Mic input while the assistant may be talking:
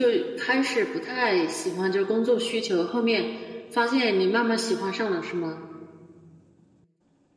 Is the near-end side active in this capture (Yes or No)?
No